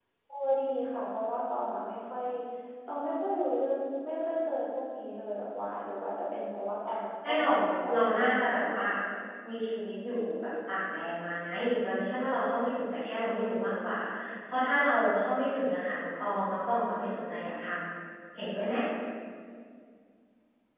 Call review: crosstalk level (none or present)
present